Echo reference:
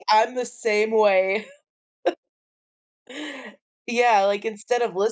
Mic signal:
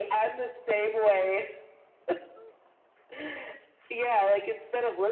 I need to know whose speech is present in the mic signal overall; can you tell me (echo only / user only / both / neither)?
echo only